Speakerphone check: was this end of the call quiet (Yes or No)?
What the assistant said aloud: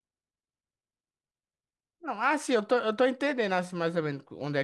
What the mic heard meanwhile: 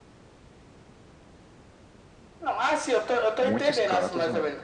No